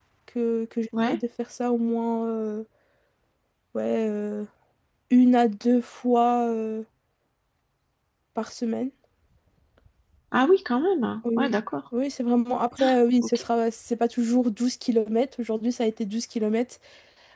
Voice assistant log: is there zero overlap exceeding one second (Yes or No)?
Yes